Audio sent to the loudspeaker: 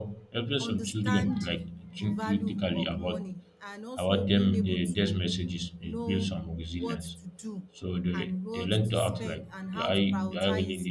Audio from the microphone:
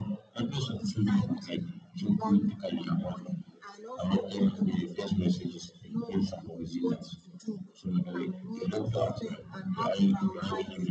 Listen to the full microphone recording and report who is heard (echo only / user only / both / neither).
echo only